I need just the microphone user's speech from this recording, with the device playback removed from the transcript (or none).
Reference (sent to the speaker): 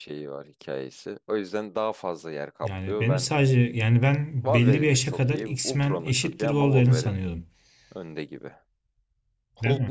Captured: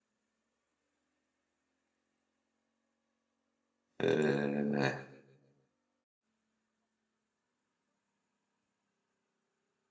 Ee,